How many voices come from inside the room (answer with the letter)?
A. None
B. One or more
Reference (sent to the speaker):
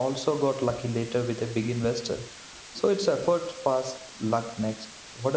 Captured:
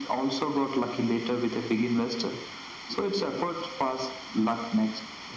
A